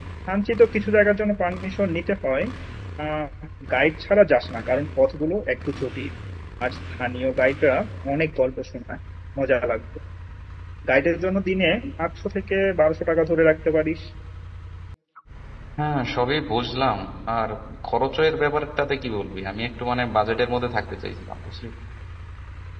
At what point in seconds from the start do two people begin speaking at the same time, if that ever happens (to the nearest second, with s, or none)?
none